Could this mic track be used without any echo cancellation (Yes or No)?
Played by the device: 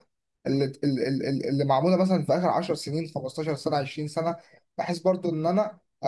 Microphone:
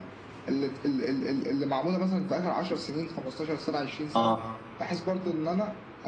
No